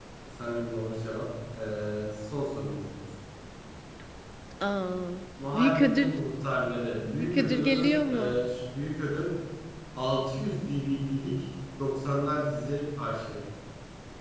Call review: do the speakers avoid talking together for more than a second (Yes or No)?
No